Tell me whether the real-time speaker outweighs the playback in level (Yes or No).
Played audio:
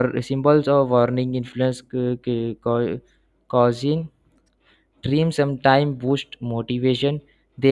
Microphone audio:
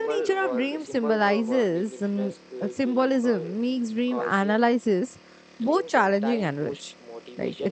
Yes